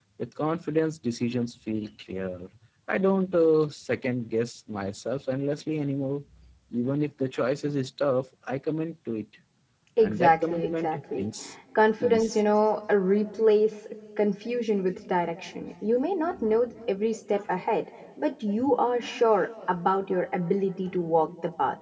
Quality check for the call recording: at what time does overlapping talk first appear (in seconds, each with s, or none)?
10.0 s